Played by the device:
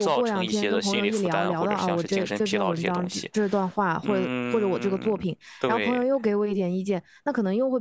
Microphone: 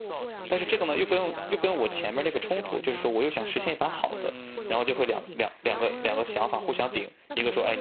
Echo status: present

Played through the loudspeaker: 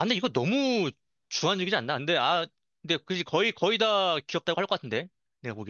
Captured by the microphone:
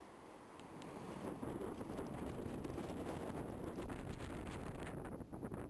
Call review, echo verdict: none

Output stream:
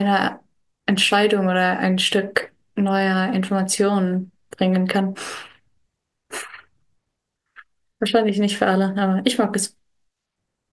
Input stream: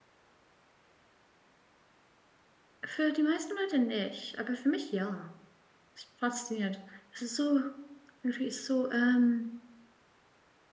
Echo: none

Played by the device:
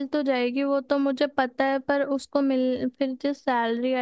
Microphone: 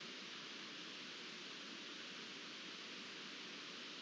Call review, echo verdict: none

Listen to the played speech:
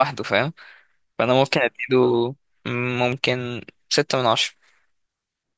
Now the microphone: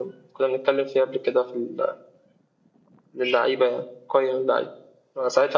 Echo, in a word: none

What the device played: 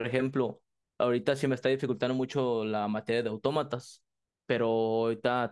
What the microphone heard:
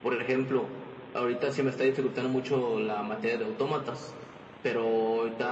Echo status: present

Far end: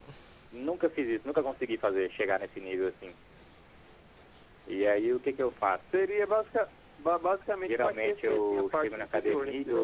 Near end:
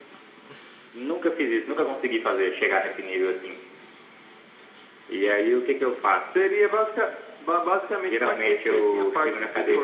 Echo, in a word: present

